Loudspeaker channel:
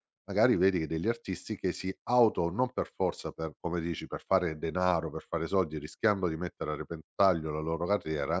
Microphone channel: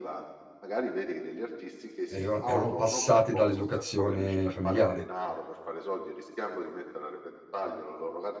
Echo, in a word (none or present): present